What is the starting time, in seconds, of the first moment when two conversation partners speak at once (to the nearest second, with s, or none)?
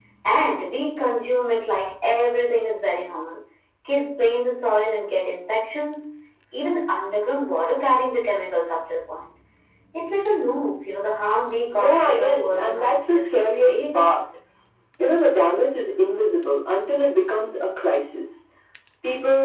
12 s